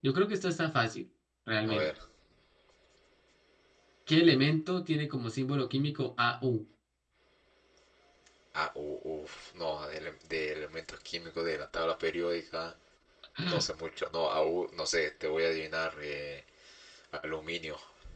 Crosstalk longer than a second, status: none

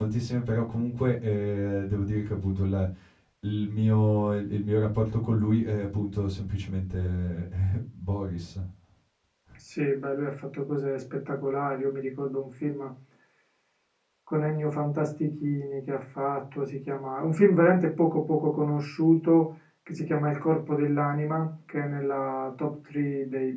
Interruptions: none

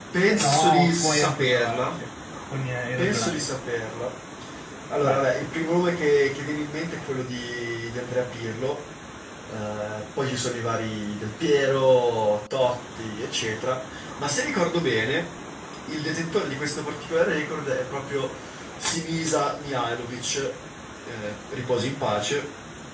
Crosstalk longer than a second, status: present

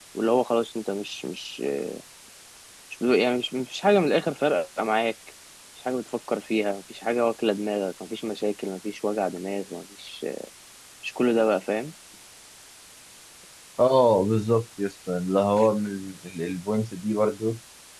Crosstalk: none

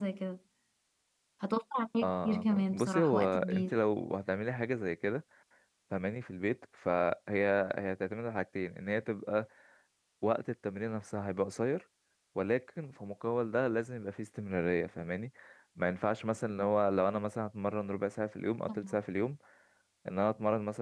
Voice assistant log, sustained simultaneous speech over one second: present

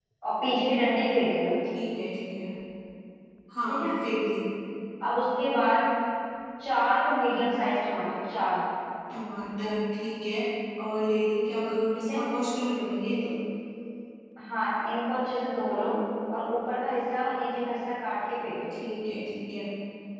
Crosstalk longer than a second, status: none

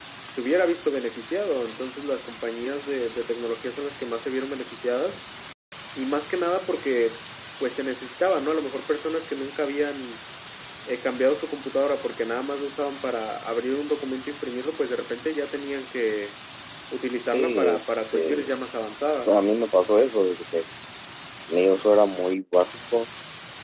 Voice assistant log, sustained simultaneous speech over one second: present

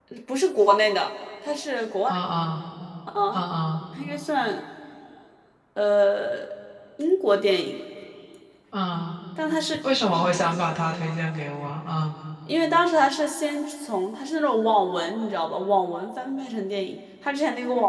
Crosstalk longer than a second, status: none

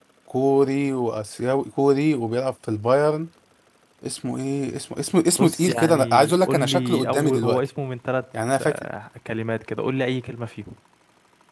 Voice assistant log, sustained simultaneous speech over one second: present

